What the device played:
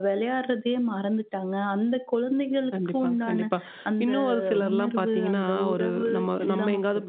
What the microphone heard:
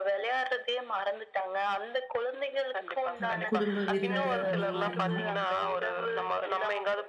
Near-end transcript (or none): அ குடும்ப விருந்து அந்த மாரினா,